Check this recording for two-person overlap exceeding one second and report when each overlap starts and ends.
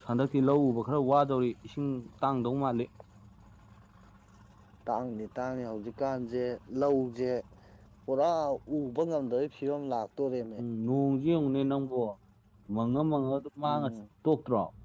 none

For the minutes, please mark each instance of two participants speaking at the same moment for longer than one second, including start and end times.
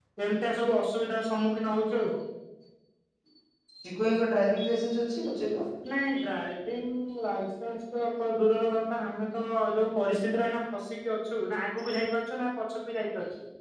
none

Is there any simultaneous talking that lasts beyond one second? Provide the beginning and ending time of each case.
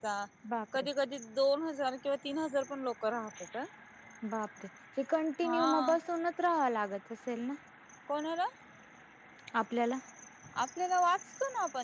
none

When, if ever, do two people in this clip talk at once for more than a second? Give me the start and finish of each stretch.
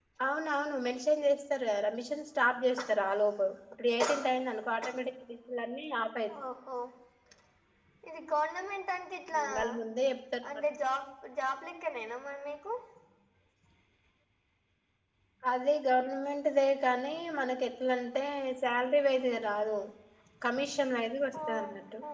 none

